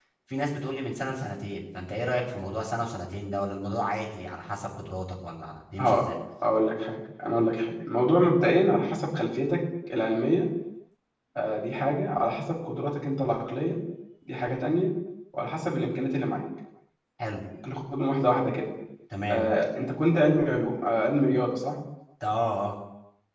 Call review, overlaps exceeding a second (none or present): none